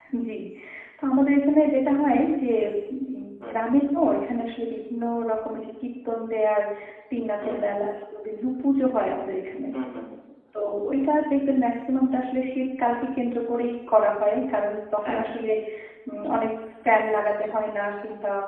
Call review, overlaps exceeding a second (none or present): none